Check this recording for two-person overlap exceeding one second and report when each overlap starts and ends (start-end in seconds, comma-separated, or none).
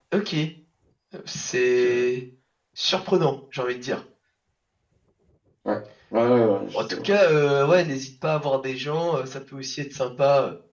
none